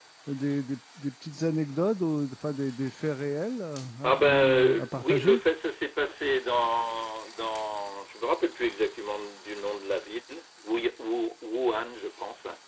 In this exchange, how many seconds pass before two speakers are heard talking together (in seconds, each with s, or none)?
4.0 s